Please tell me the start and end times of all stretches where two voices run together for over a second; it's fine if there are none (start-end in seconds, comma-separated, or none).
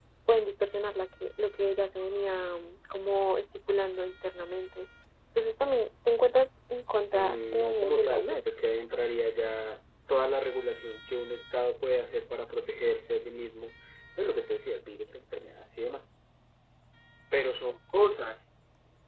7.1-8.7